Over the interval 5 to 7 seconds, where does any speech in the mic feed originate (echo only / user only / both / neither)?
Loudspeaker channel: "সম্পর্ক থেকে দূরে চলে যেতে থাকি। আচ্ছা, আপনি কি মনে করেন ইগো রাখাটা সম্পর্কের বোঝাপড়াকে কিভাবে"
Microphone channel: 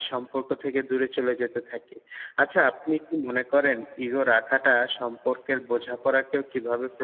echo only